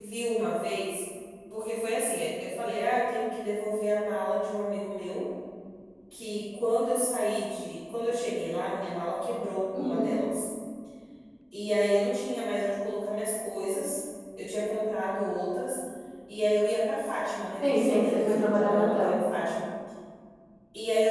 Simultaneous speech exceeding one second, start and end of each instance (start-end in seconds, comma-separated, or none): 17.6-19.2